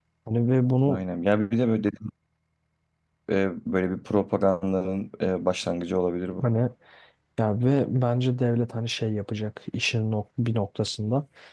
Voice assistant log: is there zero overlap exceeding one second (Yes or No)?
Yes